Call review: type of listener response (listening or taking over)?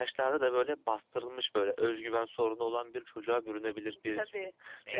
listening